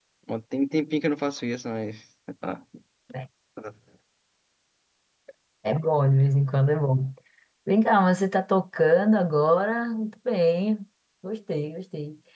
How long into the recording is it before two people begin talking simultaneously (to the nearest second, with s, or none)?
none